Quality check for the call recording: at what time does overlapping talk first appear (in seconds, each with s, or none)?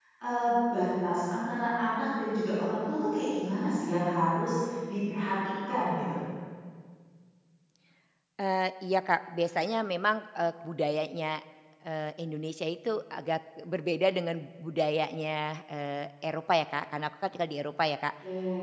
none